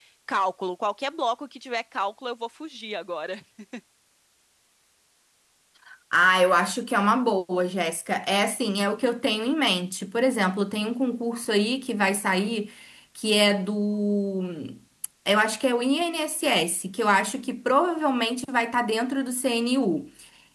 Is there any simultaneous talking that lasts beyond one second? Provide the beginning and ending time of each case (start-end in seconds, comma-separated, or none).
none